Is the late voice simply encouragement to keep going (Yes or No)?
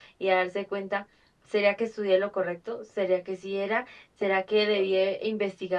Yes